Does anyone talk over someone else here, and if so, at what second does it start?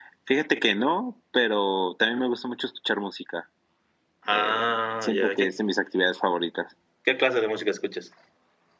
4 s

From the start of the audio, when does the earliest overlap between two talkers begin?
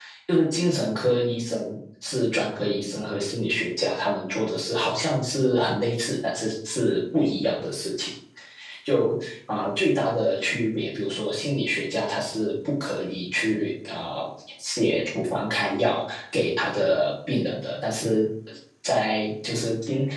none

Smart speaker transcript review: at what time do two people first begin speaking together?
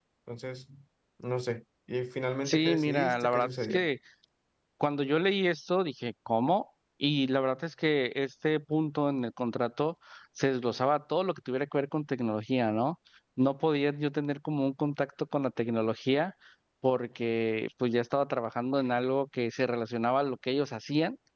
2 s

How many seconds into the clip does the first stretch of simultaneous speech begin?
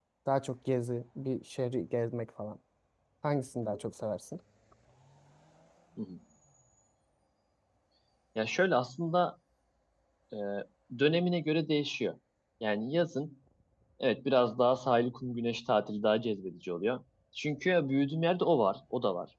none

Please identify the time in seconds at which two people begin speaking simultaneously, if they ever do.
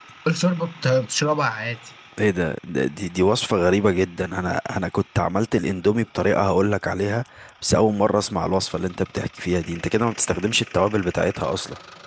none

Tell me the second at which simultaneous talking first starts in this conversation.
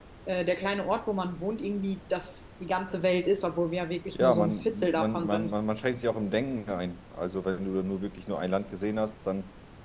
4 s

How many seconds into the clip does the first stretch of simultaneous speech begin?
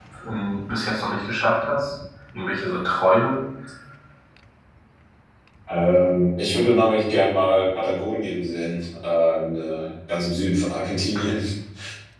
none

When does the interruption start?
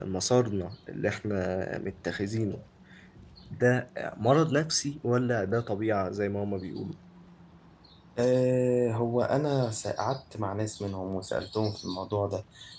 none

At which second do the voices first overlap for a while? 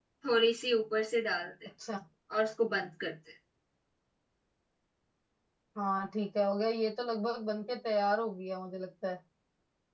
none

